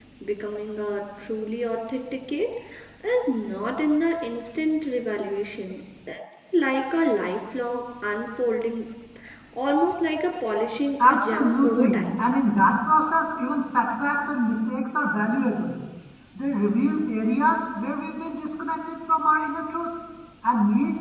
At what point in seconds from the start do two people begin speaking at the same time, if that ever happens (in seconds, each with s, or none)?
11.0 s